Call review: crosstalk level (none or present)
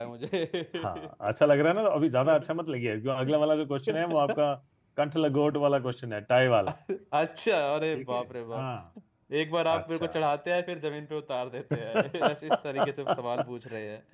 present